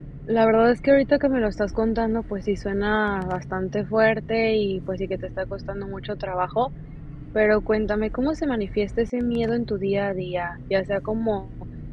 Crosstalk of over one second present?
No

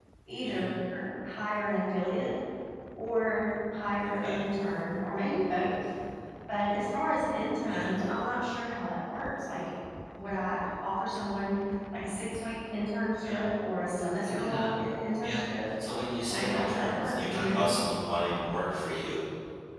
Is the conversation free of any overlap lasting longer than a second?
No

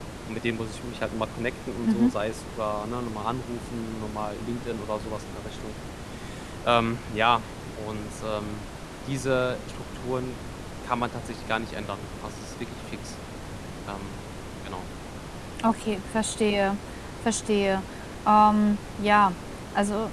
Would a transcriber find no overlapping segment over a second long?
Yes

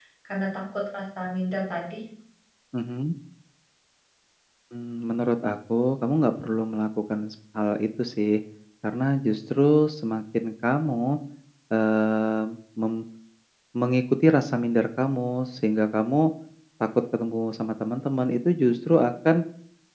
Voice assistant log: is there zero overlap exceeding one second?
Yes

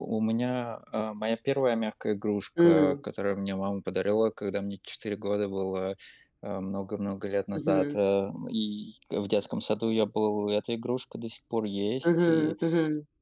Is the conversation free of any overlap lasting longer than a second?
Yes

